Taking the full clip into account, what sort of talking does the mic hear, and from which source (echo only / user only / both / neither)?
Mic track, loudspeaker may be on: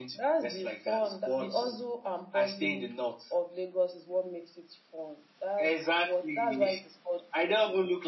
echo only